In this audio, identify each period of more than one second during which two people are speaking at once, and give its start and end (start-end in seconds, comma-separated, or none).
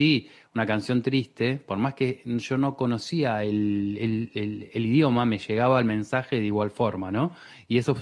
none